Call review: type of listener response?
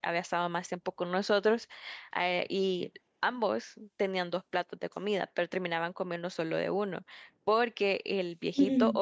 listening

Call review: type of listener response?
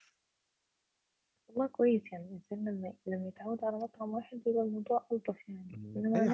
taking over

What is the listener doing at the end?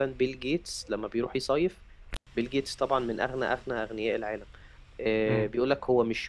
listening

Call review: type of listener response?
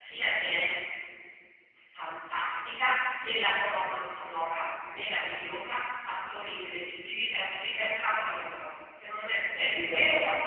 listening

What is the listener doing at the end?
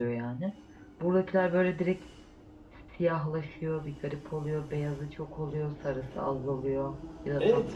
taking over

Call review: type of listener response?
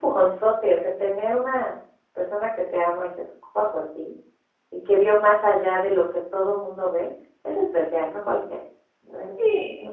taking over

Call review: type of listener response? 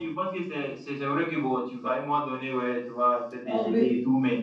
listening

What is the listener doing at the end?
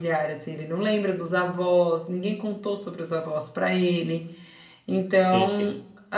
listening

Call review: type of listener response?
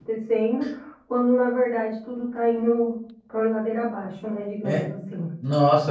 taking over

